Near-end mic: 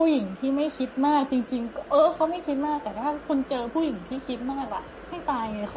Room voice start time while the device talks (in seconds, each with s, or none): none